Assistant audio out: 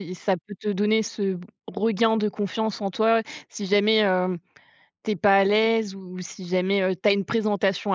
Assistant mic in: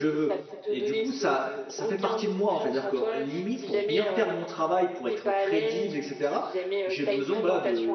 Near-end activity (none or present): present